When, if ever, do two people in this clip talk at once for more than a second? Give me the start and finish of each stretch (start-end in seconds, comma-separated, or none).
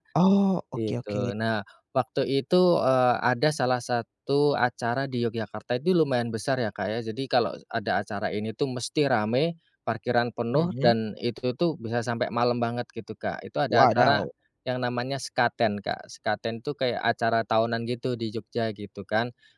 none